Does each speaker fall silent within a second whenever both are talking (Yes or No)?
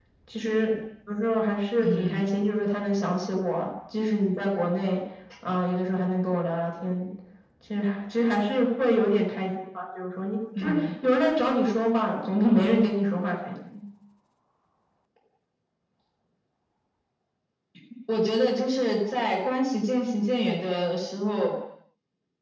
Yes